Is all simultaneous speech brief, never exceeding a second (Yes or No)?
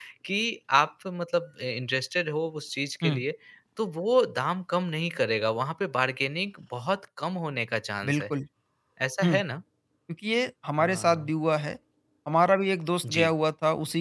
Yes